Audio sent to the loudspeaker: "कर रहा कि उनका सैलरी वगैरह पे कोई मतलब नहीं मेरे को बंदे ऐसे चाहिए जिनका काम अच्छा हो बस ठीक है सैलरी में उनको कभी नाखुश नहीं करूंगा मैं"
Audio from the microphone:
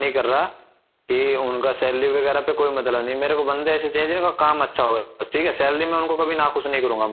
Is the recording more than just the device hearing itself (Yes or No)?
No